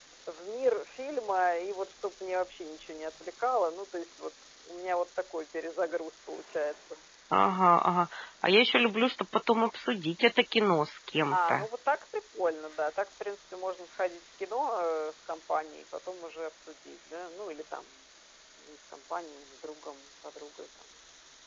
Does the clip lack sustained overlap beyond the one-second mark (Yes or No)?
Yes